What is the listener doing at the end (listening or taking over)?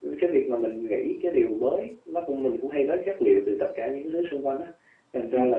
listening